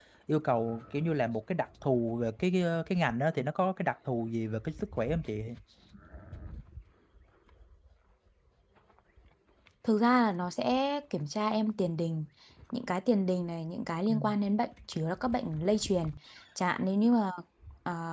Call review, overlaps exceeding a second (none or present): none